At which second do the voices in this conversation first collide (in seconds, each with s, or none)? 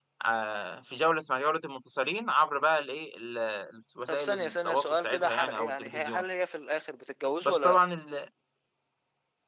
4.1 s